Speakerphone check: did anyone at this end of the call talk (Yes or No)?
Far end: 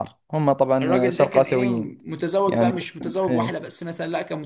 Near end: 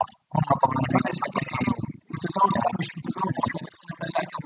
No